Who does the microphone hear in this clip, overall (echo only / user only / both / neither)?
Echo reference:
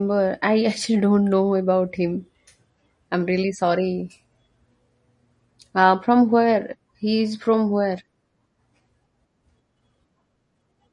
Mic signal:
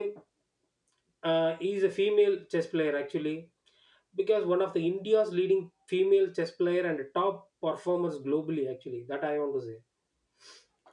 user only